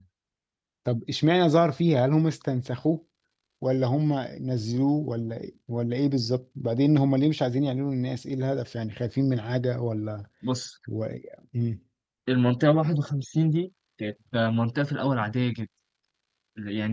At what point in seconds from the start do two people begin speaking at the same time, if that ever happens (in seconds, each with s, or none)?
none